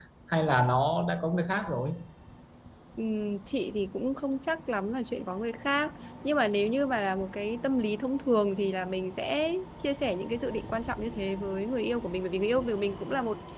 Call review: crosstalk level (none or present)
none